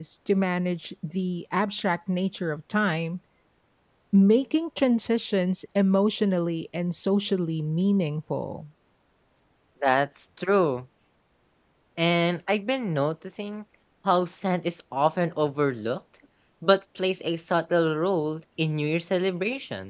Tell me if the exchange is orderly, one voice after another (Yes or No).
Yes